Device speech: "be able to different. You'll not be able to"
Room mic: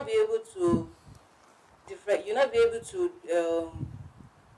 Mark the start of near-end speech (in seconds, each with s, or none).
none